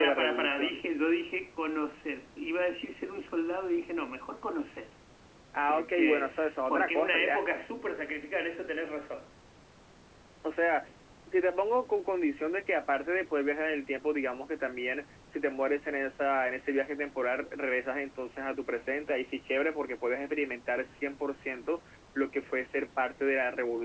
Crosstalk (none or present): present